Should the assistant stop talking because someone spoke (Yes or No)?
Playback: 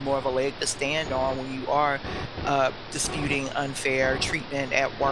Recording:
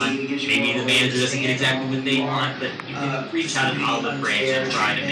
Yes